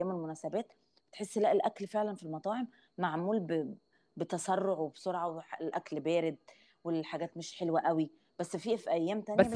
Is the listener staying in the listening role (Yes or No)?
No